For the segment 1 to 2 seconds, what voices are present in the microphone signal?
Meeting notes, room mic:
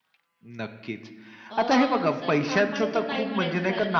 both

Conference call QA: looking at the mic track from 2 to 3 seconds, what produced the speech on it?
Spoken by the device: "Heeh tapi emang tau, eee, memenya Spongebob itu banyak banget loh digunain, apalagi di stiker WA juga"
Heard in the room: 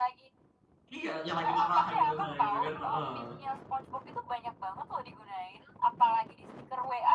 both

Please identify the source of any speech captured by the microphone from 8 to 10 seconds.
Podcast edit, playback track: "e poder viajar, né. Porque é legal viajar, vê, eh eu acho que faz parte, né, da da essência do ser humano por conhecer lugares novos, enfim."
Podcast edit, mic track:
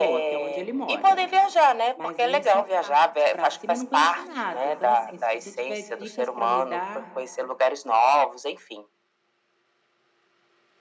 echo only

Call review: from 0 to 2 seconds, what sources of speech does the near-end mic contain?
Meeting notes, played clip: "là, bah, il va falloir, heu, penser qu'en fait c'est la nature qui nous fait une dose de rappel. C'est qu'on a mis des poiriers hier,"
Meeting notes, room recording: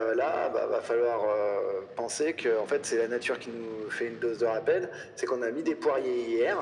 echo only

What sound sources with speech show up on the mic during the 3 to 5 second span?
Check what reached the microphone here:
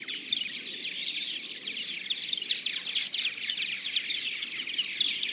neither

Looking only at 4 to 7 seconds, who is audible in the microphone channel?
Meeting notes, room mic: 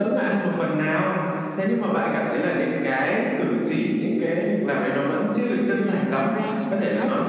both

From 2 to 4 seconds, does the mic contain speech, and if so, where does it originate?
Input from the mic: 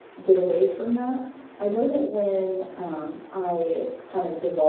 echo only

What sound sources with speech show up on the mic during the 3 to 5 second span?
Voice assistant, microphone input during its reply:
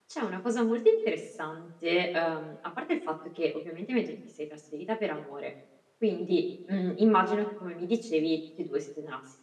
user only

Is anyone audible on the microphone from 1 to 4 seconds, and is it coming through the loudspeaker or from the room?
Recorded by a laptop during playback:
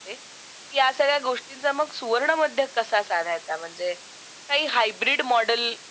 echo only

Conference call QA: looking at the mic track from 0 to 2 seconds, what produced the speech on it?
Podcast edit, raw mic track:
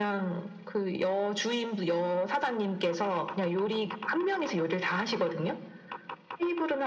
echo only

